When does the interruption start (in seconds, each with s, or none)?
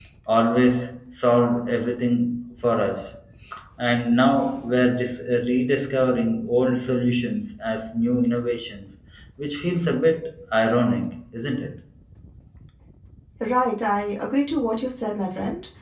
none